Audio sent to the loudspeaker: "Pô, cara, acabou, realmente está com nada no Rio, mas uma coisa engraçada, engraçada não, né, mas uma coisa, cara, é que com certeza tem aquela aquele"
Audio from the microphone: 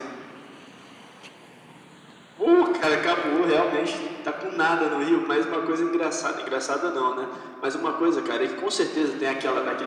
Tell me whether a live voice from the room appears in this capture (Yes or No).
No